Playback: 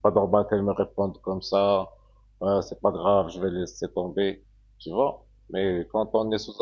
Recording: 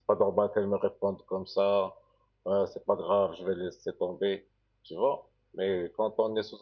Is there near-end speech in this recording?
No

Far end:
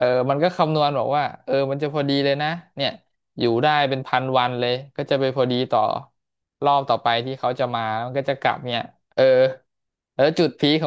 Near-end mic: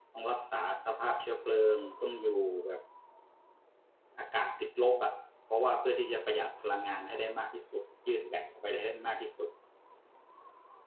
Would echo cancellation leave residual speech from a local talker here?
Yes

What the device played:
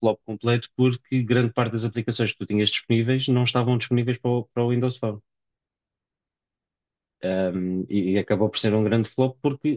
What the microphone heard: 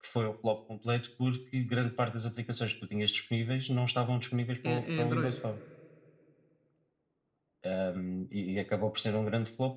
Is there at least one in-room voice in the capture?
Yes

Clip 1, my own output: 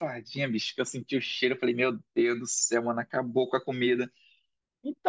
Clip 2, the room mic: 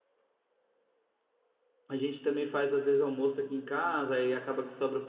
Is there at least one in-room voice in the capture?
Yes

